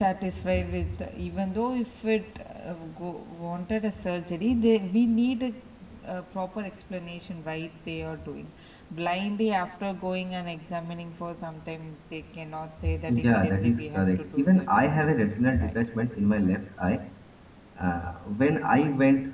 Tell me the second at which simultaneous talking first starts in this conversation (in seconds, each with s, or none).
13.1 s